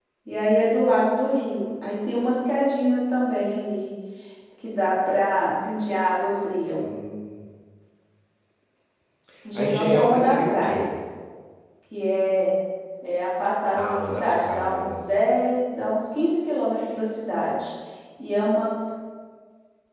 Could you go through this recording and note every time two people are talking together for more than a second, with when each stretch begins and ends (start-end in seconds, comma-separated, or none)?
9.6-10.9, 13.7-15.0